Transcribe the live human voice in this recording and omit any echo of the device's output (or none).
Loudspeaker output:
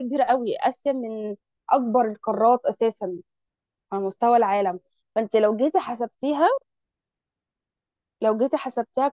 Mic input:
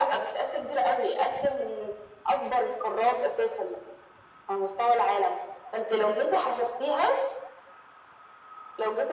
none